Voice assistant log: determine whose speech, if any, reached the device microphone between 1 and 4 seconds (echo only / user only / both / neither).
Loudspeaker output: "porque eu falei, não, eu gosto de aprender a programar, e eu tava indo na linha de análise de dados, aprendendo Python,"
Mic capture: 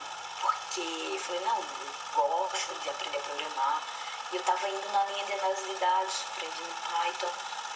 echo only